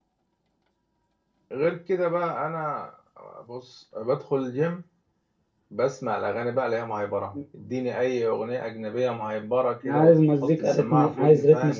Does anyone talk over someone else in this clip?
Yes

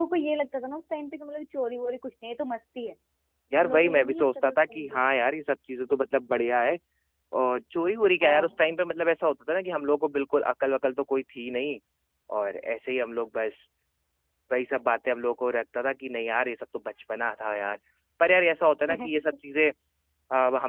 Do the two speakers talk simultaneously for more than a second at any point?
Yes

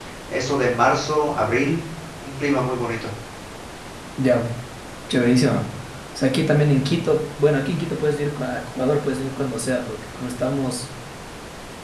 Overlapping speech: No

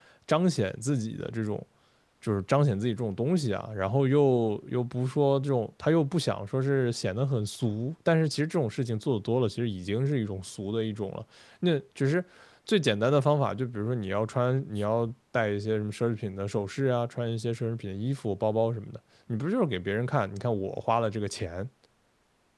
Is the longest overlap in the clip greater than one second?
No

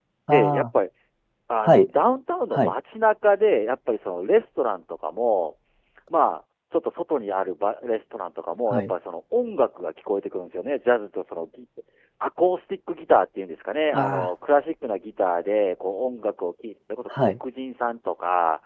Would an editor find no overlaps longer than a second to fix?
Yes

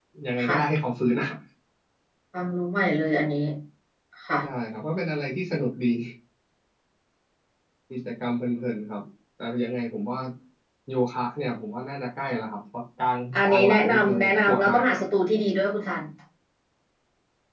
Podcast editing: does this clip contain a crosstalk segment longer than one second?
Yes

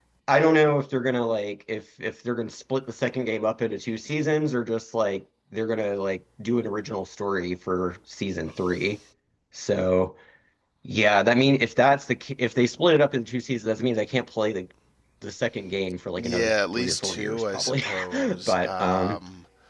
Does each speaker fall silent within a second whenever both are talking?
No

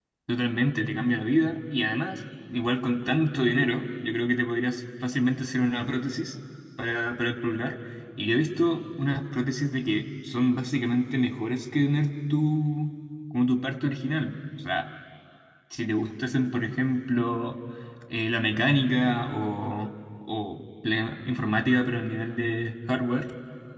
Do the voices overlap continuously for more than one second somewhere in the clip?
No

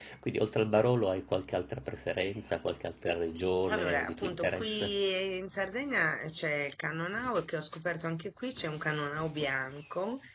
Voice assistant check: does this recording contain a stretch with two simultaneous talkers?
Yes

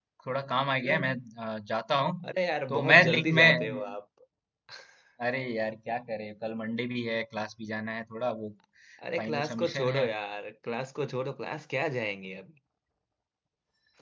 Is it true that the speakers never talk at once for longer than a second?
No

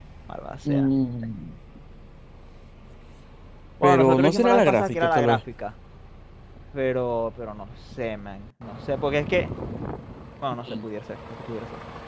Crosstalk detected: Yes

